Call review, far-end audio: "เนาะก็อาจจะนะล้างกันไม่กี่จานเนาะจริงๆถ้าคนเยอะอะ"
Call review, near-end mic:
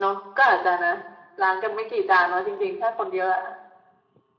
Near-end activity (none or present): none